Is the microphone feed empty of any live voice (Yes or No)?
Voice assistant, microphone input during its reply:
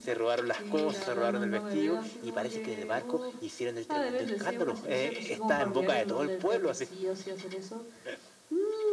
No